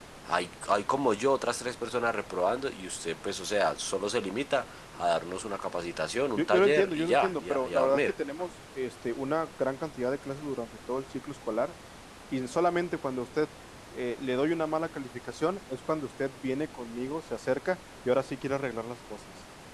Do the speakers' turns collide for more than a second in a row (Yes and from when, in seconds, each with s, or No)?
Yes, from 6.4 s